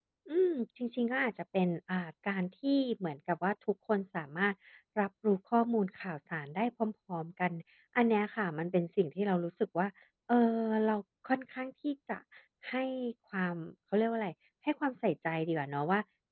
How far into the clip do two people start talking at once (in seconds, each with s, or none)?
none